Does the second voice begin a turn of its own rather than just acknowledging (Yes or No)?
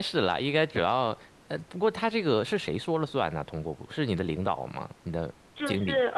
Yes